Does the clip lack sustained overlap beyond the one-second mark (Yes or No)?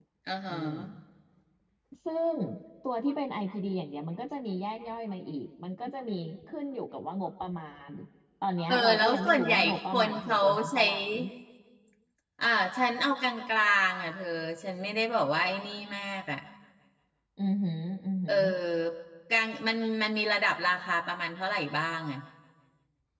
No